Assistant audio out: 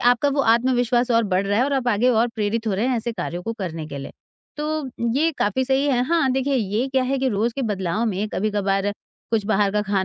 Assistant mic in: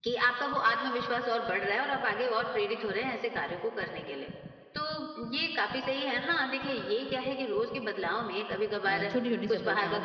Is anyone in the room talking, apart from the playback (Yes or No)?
Yes